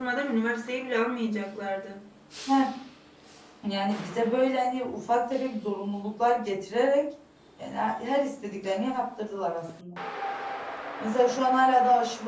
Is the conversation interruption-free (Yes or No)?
Yes